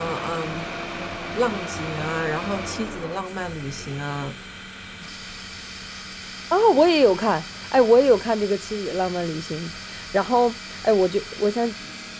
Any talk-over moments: No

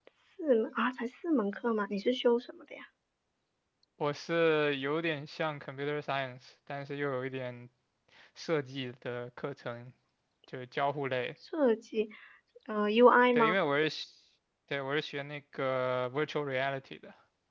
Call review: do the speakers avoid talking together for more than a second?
Yes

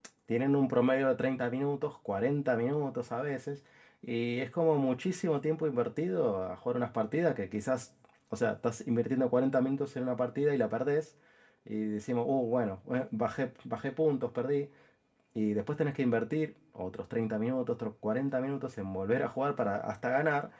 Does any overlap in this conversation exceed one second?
No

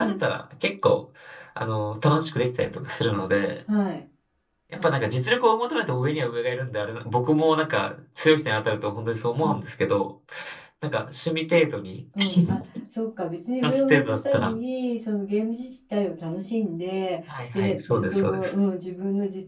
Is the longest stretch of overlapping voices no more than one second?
No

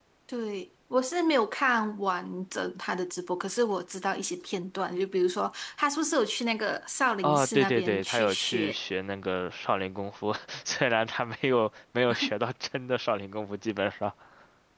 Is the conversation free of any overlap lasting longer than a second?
No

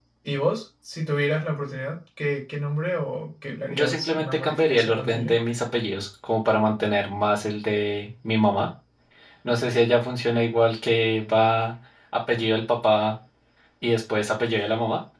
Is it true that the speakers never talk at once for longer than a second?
No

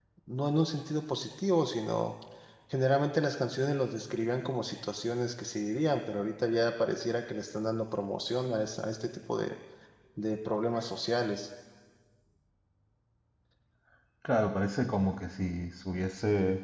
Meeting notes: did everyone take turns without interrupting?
Yes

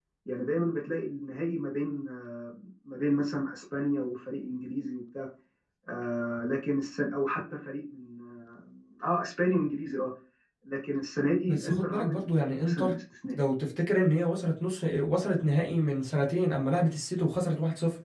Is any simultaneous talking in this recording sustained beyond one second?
Yes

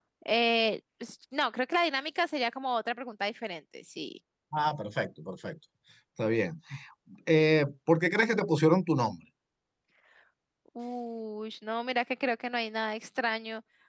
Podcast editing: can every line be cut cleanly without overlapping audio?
Yes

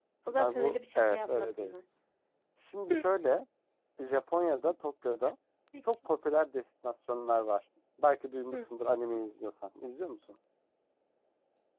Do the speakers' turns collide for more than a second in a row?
Yes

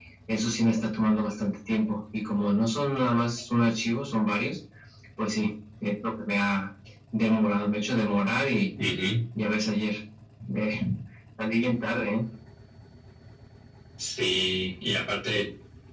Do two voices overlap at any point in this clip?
No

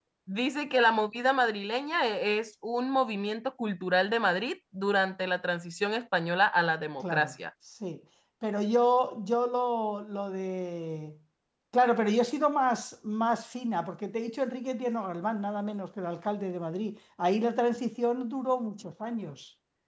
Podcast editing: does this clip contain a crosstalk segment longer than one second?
No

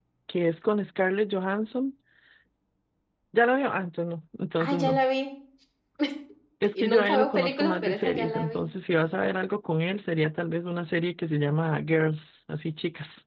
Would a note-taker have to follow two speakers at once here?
Yes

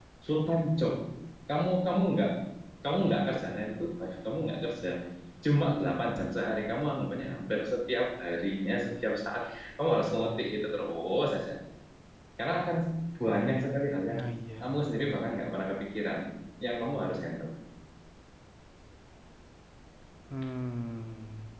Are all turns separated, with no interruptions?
Yes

